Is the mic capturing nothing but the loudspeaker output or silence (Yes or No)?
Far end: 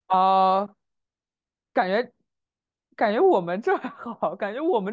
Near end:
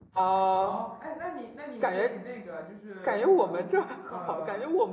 No